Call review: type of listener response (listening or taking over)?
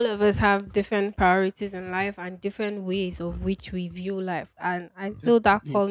listening